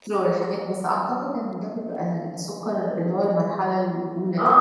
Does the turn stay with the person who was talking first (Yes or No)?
No